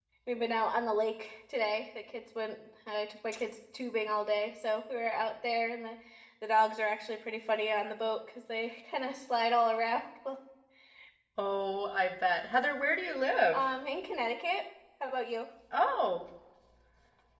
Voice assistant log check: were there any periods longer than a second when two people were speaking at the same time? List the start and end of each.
none

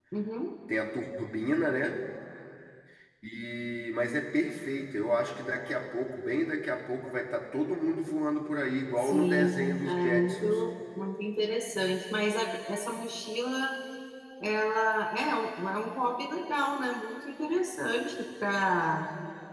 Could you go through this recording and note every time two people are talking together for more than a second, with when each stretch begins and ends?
9.0-10.6

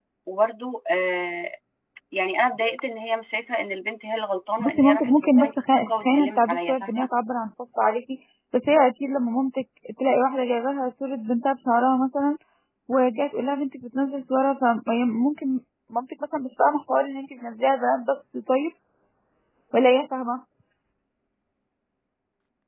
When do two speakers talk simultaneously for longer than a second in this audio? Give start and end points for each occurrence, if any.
4.6-7.1

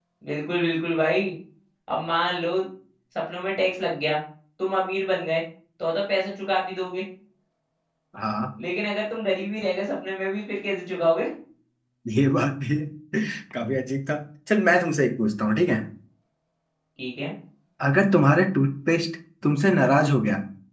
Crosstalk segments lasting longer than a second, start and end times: none

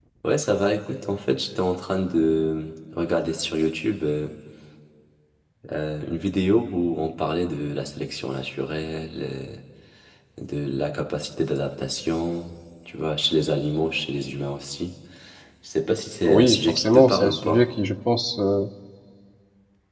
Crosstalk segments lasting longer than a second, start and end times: 16.2-17.6

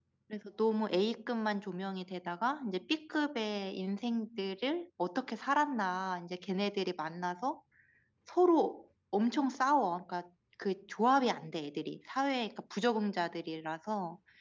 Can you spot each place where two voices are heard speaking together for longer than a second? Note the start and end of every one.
none

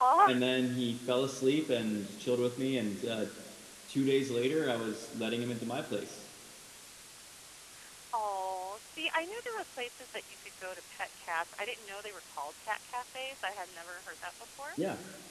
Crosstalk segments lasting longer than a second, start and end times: none

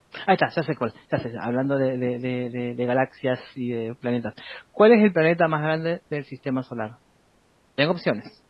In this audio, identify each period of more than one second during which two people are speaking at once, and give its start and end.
none

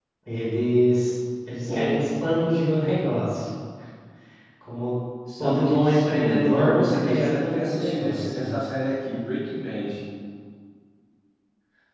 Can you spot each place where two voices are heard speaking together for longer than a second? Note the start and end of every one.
5.4-8.6

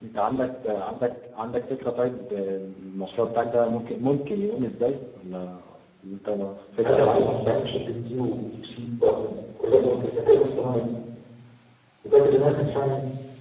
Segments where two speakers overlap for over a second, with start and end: none

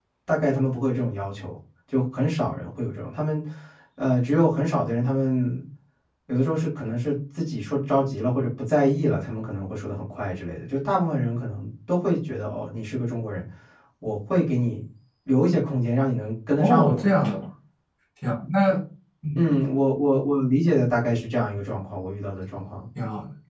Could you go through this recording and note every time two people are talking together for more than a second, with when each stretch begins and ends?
none

